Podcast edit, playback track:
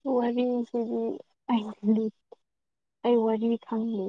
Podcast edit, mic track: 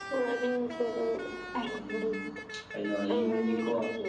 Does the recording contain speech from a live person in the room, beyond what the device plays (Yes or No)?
Yes